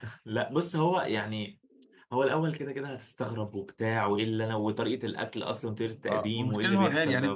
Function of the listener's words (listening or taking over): taking over